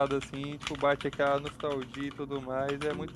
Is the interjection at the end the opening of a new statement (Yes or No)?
Yes